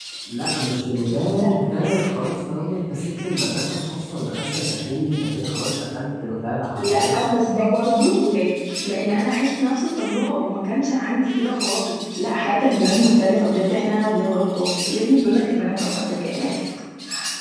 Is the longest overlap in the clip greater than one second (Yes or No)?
No